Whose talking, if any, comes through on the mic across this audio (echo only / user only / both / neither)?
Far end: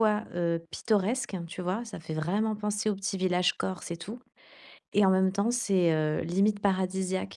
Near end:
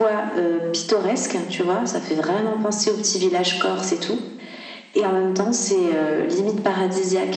echo only